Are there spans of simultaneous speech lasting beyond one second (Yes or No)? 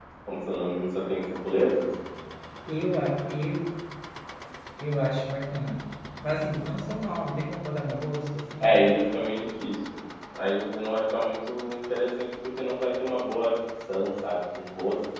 No